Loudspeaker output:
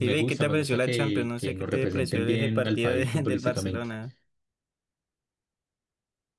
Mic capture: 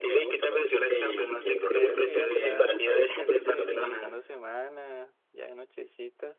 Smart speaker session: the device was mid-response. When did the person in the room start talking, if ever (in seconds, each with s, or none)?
1.5 s